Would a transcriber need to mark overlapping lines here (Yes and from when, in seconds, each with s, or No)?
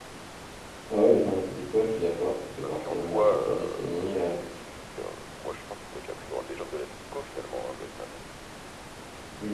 Yes, from 2.6 s